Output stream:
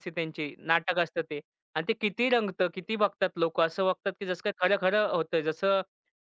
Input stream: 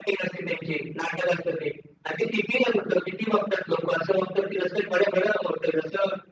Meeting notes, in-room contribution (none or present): none